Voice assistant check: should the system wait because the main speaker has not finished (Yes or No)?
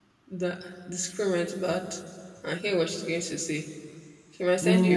No